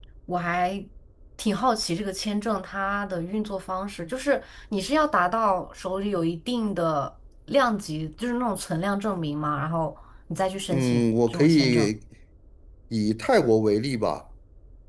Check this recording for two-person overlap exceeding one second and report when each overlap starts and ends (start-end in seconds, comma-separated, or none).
10.7-11.9